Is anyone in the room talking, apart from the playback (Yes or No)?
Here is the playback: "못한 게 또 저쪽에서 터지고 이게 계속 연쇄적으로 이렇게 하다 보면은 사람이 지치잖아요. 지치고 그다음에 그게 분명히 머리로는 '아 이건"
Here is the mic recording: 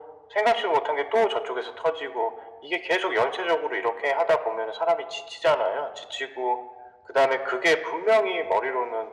No